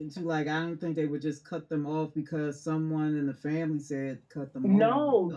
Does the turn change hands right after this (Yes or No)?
Yes